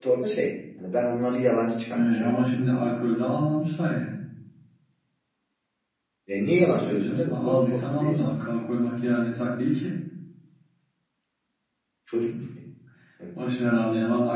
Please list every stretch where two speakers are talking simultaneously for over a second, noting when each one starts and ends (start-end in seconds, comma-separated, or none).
6.8-8.3